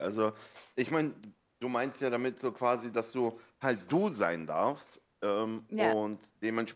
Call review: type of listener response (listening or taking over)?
listening